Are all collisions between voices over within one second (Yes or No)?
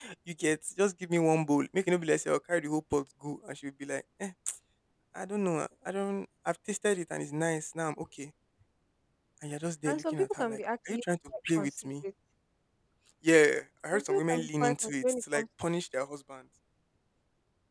No